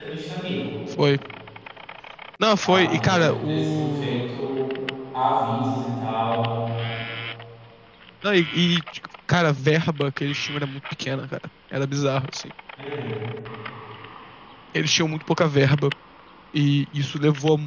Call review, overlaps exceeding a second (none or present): present